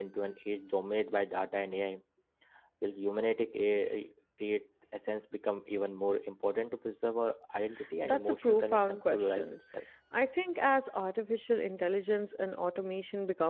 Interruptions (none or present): present